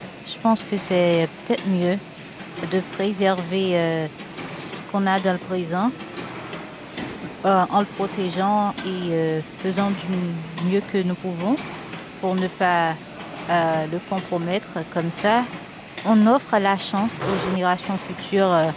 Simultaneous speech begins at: none

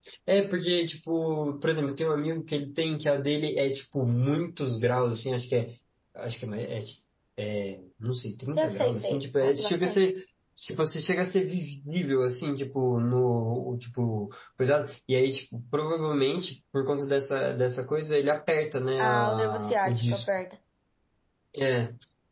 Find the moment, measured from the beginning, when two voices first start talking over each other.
8.6 s

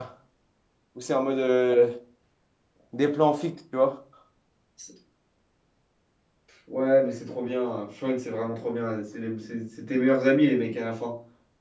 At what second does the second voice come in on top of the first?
none

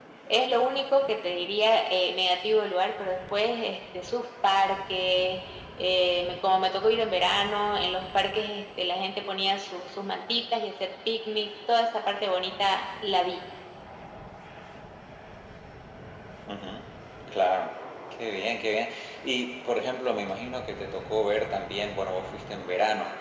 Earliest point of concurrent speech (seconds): none

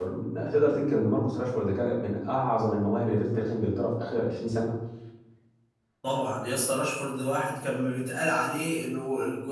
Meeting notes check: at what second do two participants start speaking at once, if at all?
none

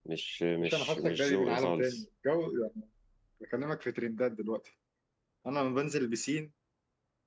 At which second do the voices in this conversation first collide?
0.6 s

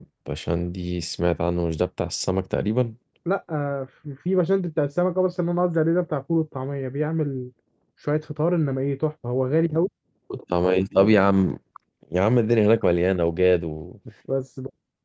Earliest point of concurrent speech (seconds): none

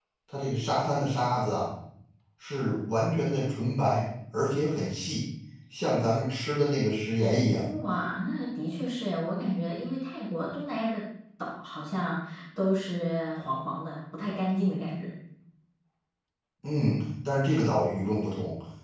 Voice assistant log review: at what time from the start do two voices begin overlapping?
none

